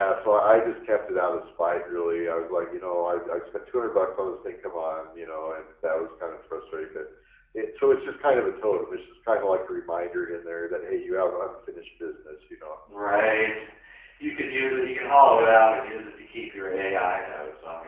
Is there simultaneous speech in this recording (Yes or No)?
No